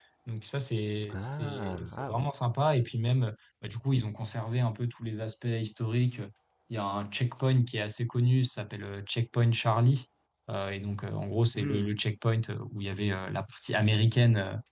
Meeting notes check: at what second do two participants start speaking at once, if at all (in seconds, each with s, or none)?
1.1 s